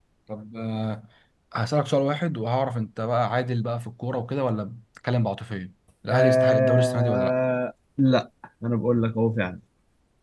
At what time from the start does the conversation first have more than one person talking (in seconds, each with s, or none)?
6.1 s